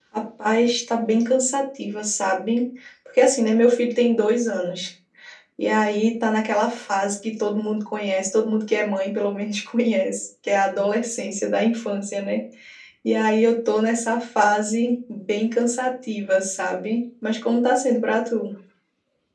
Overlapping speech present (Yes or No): No